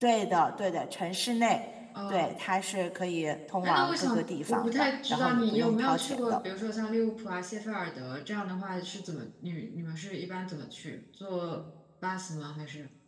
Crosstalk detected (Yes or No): Yes